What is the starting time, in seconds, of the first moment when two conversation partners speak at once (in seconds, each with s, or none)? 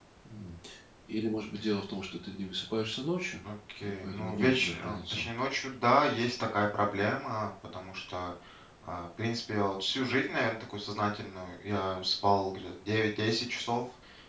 3.8 s